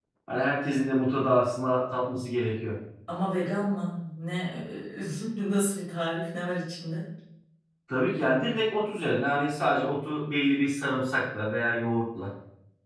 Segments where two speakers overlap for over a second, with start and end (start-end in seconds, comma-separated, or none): none